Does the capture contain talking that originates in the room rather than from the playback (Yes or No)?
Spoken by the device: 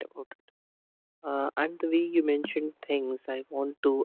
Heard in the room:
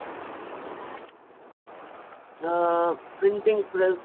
Yes